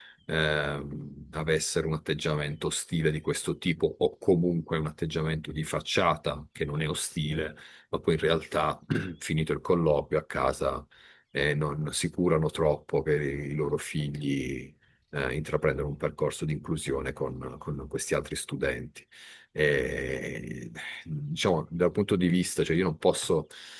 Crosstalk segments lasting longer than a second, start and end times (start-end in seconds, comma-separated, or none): none